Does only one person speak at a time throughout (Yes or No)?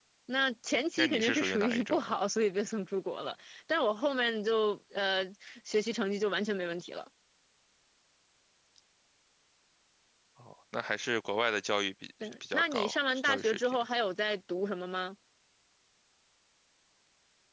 No